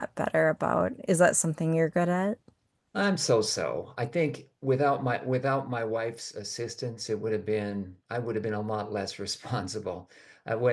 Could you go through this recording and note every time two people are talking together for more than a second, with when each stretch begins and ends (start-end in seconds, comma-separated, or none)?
none